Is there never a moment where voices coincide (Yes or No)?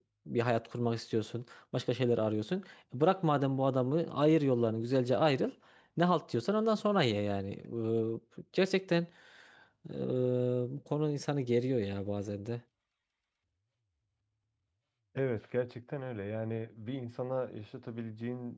Yes